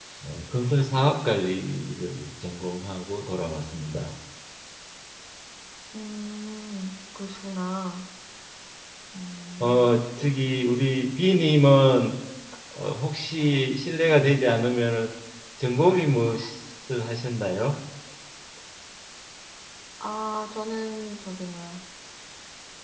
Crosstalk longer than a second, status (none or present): none